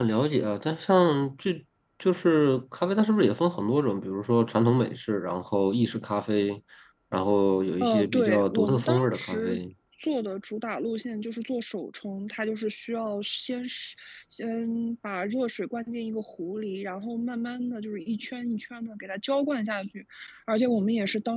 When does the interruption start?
7.8 s

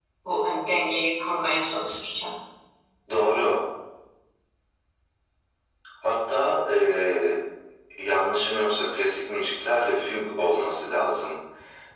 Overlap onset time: none

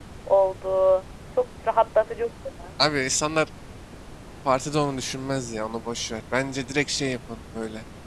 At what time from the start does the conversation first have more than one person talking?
none

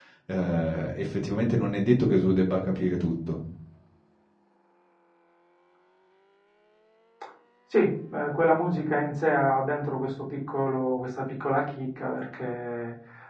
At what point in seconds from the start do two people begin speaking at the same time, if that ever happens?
none

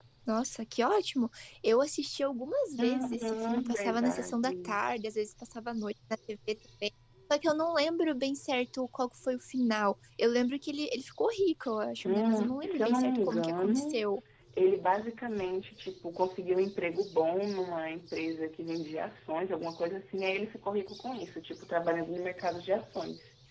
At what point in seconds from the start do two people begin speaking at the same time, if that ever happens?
2.8 s

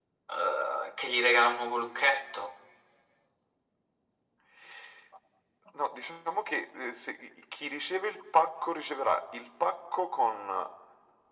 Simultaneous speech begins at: none

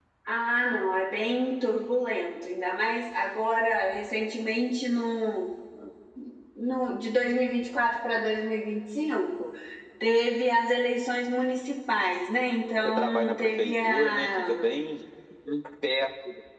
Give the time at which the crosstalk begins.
12.8 s

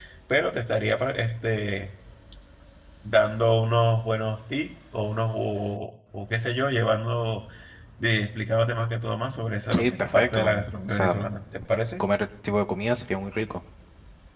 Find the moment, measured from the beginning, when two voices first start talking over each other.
9.7 s

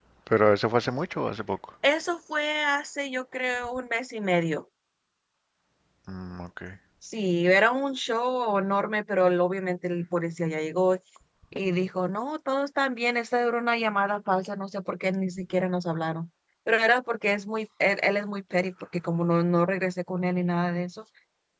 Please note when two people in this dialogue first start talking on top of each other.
none

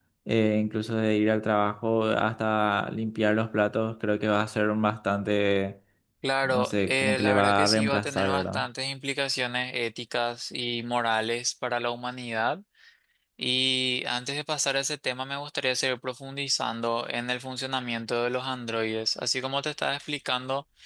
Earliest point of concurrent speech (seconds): 6.4 s

